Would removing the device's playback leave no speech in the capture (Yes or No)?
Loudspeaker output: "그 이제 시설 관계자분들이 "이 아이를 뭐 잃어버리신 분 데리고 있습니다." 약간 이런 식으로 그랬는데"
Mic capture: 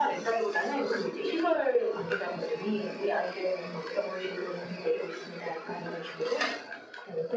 Yes